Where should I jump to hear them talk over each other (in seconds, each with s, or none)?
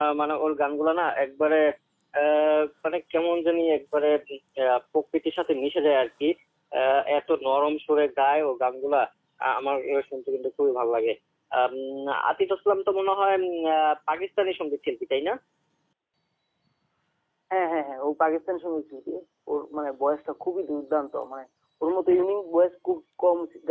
none